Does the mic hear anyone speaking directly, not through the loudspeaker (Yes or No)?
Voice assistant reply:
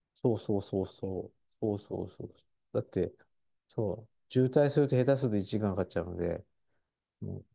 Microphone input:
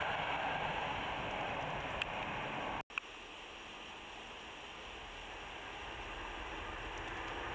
No